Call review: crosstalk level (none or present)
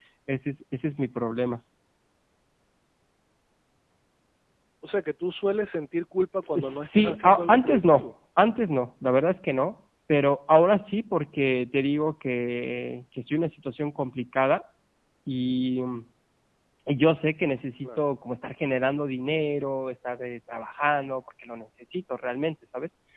present